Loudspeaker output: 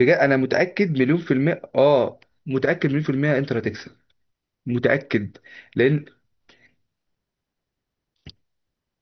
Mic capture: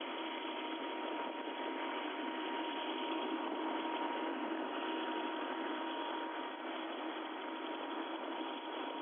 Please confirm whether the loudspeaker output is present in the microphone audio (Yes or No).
No